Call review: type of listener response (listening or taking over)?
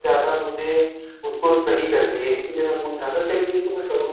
listening